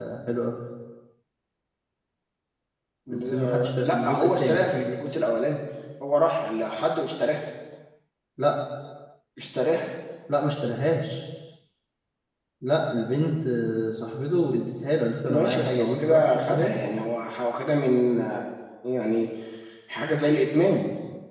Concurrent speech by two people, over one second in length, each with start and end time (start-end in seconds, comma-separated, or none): 3.1-4.6, 15.3-16.8